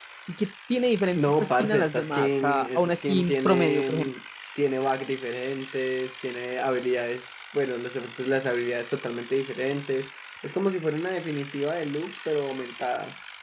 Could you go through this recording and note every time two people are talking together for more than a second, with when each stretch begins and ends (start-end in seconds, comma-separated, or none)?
1.1-4.1